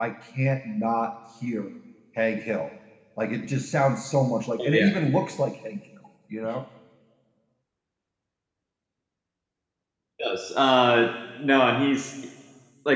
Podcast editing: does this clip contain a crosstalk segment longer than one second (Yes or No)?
No